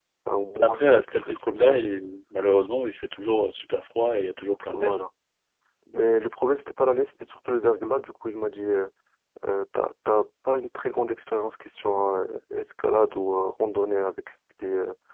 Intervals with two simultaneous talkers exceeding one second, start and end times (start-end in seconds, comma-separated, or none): 0.5-1.8